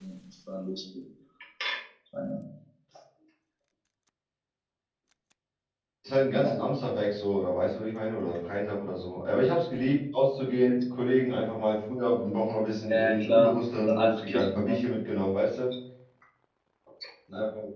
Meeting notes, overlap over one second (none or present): present